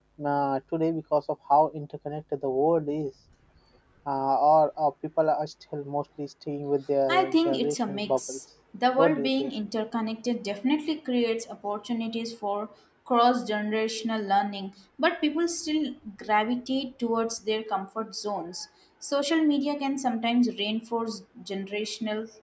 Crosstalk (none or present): present